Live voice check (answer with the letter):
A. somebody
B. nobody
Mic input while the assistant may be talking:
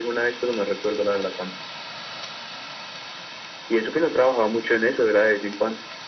B